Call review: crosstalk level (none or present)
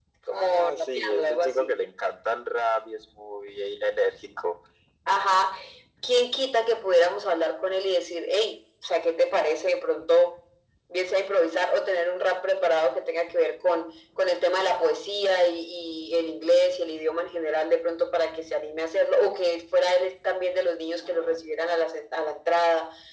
present